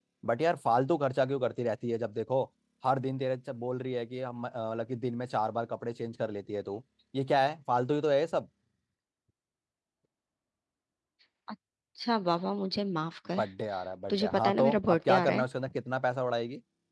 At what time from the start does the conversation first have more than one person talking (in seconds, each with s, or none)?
14.1 s